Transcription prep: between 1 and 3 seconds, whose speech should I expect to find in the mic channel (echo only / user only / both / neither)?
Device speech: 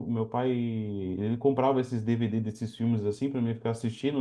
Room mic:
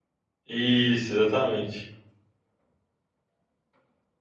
user only